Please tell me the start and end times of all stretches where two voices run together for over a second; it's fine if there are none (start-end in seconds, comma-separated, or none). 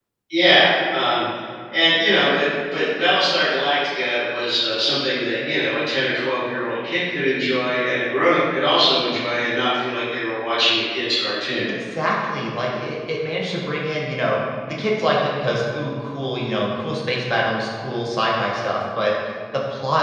none